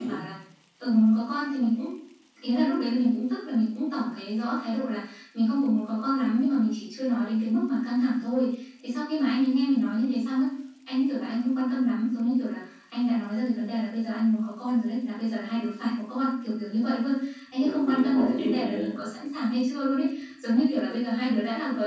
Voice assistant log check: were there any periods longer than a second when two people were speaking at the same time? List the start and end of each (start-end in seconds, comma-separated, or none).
17.6-19.0